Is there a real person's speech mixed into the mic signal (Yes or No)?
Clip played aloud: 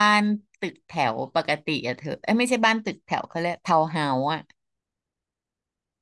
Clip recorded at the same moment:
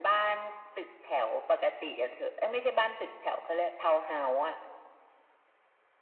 No